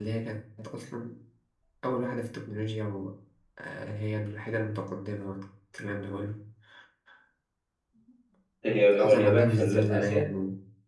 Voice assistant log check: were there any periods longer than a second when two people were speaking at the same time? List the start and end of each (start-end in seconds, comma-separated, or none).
9.0-10.2